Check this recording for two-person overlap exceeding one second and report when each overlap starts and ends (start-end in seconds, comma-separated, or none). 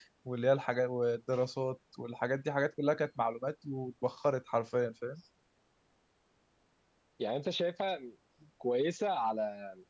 none